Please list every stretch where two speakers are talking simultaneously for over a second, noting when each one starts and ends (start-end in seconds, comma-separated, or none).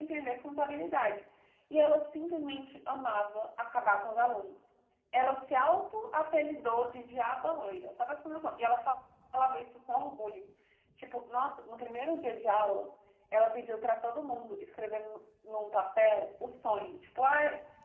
none